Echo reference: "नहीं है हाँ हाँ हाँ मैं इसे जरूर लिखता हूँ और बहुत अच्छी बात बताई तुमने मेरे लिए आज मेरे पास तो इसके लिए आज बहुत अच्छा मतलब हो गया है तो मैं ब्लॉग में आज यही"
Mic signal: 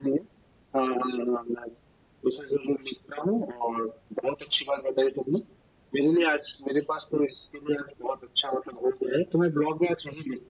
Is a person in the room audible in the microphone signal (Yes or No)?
No